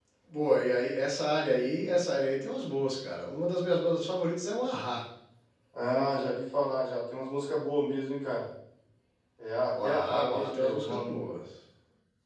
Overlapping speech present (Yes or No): Yes